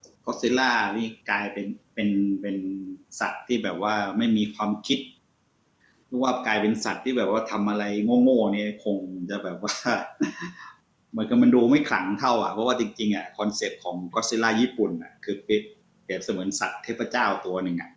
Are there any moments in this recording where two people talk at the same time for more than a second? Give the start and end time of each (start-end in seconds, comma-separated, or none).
none